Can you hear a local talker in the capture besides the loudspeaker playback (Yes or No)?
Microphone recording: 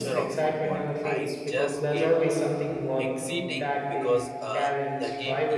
Yes